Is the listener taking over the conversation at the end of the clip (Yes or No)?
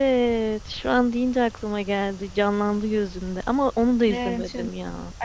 Yes